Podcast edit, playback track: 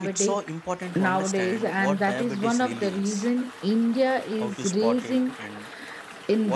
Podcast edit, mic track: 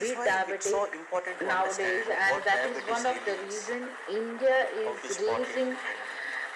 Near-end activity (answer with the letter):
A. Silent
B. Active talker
A